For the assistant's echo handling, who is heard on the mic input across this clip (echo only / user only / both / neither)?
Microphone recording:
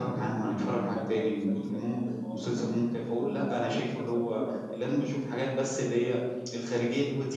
both